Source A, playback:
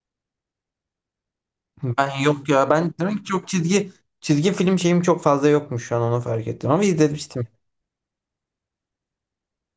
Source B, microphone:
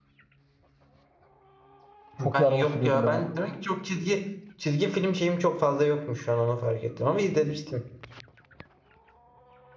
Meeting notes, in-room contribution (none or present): present